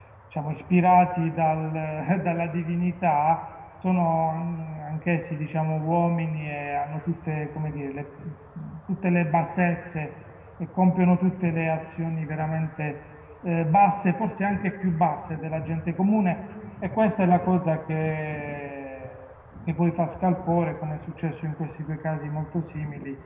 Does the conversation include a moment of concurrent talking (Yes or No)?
No